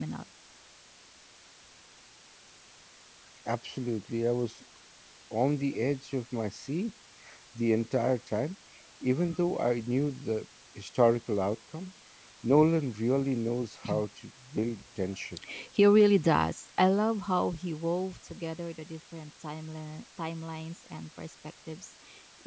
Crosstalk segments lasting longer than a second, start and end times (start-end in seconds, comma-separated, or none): none